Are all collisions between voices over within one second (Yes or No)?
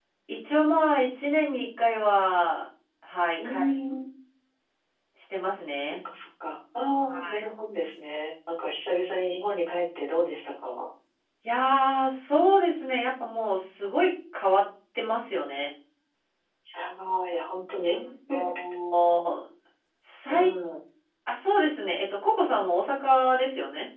Yes